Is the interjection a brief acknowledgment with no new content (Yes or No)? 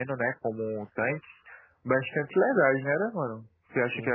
No